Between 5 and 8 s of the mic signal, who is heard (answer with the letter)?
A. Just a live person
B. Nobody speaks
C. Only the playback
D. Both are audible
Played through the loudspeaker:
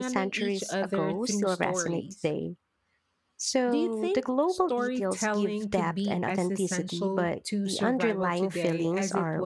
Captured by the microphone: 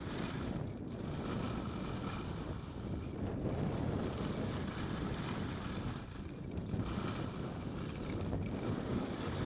B